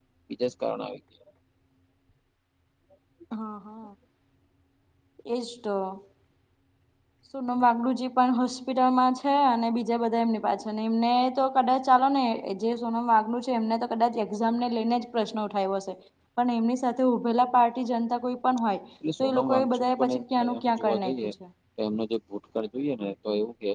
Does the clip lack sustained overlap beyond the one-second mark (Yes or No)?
No